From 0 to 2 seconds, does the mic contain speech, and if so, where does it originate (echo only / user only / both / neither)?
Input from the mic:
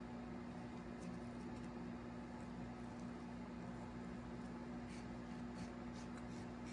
neither